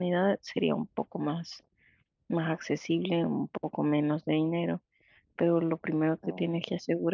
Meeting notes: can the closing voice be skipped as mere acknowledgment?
Yes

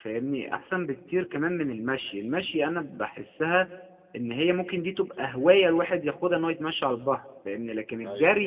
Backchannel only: Yes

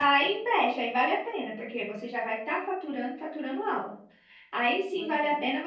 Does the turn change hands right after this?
No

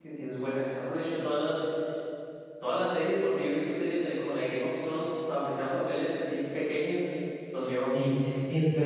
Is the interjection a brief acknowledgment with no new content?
No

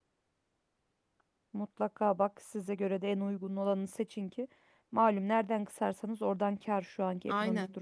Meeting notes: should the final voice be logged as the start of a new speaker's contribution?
Yes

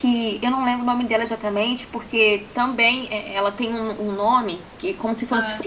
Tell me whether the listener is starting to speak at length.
No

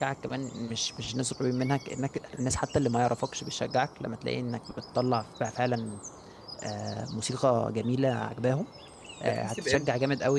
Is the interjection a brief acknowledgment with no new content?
Yes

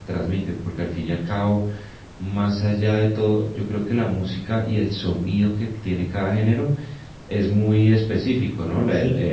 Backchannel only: Yes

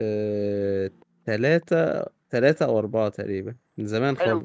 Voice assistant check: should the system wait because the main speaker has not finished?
No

